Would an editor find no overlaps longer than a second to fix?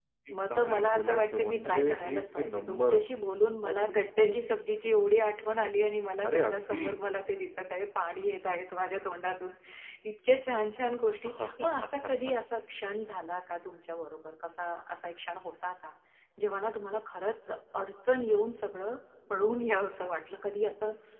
No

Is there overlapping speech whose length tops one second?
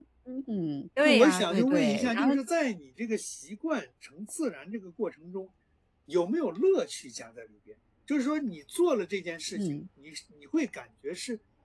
Yes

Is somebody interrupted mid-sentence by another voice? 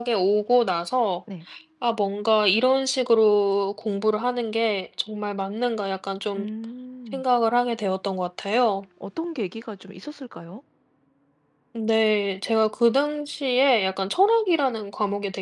No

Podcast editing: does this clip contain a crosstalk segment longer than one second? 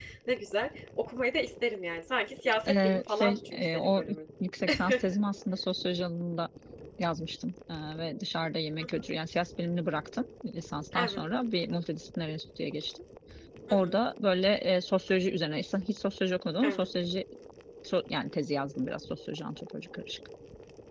Yes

